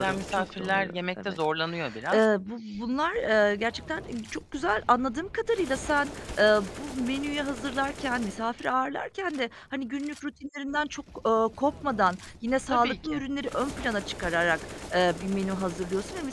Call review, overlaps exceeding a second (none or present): present